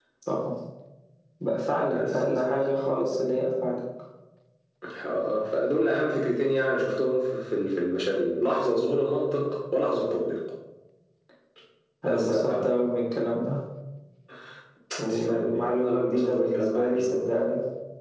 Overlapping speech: Yes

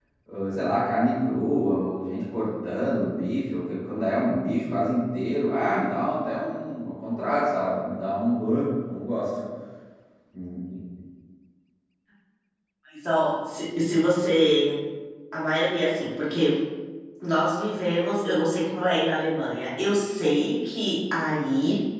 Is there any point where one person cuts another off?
No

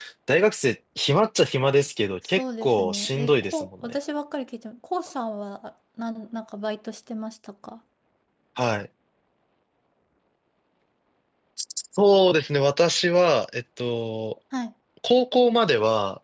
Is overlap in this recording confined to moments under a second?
No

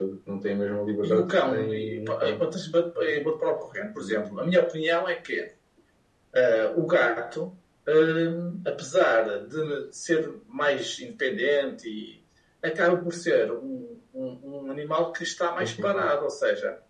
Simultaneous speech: Yes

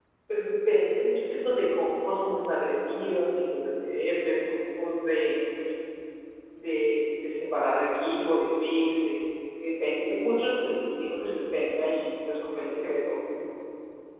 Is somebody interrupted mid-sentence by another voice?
No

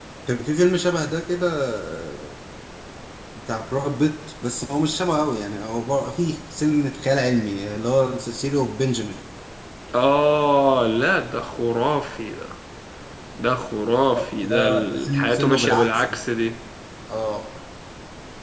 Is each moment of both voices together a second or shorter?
No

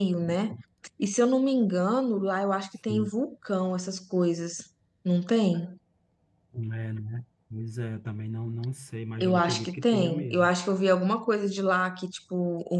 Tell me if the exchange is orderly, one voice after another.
No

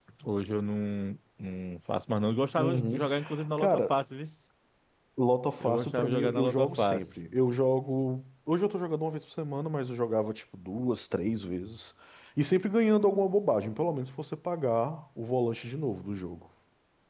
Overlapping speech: Yes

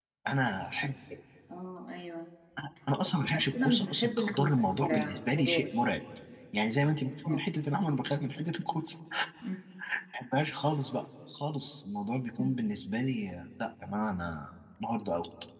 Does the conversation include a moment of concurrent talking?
Yes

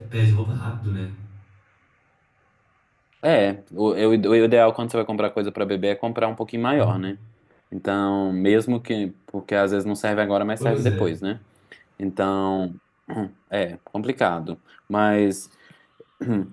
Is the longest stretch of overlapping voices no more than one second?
Yes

